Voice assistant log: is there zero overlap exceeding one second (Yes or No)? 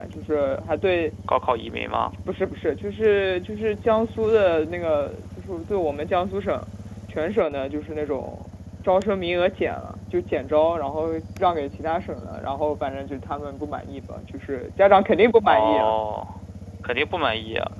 Yes